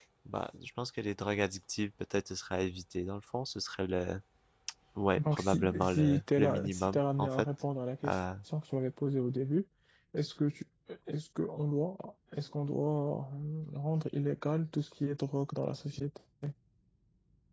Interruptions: present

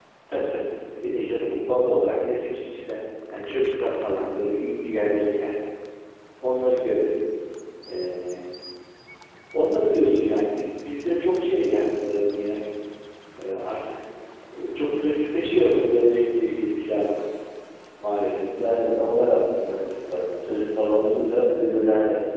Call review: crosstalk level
none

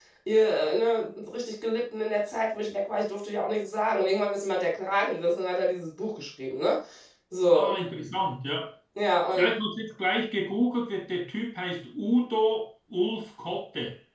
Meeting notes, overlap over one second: none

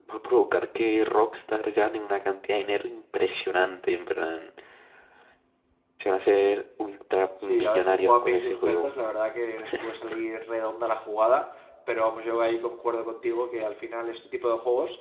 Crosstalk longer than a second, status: present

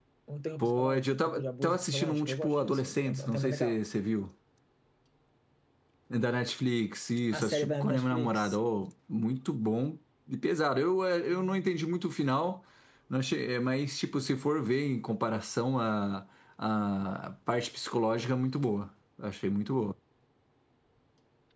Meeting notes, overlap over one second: present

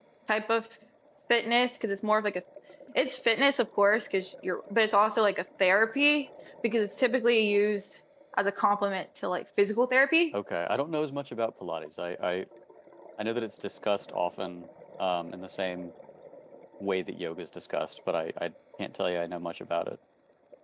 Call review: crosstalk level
none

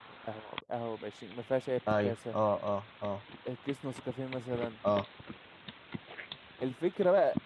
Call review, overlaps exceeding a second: none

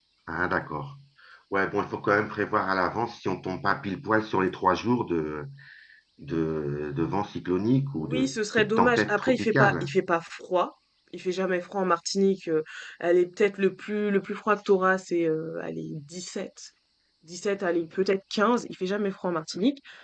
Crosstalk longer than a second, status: present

